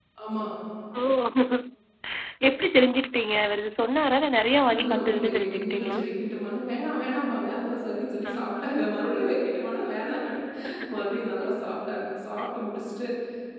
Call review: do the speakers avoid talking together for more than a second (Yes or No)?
No